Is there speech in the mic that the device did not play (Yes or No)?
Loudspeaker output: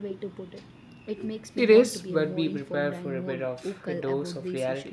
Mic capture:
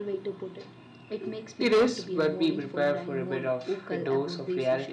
No